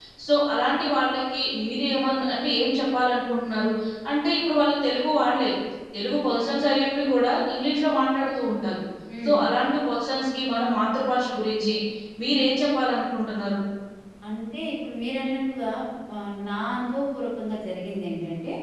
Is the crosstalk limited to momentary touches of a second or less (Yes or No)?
Yes